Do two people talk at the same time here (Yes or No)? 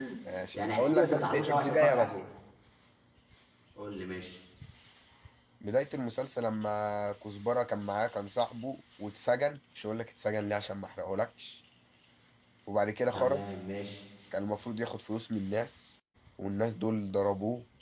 Yes